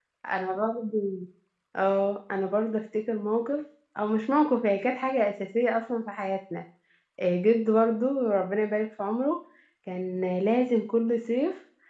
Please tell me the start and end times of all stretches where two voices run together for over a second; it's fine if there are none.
none

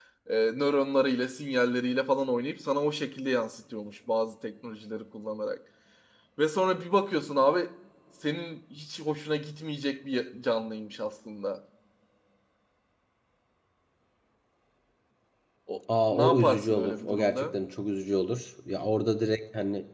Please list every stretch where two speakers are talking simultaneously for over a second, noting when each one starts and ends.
16.1-17.6

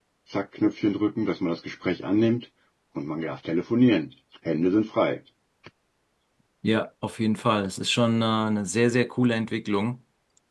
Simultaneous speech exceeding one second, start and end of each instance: none

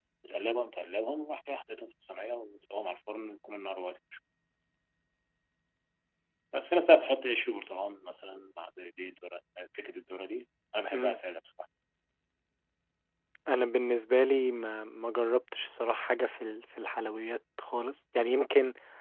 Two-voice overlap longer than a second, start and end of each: none

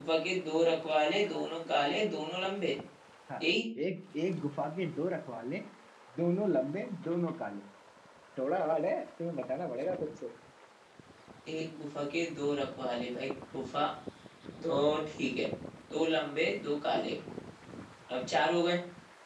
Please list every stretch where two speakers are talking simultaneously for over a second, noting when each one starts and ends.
none

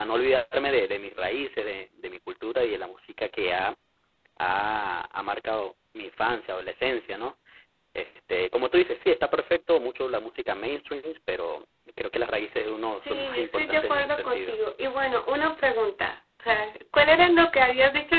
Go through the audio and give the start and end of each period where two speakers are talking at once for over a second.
13.0-14.6

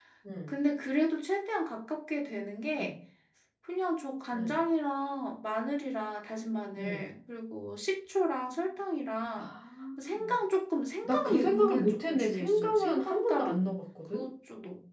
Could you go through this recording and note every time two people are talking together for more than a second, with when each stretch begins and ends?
11.0-13.6

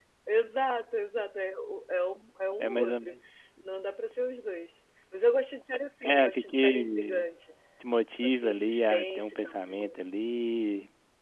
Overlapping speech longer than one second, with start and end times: 6.0-7.3, 8.2-9.8

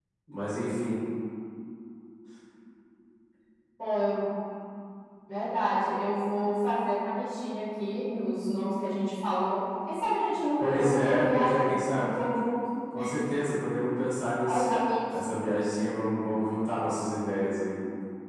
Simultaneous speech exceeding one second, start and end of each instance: 10.6-12.1

